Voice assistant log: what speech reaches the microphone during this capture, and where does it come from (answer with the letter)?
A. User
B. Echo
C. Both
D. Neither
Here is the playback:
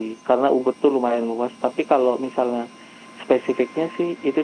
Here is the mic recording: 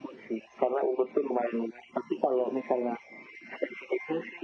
B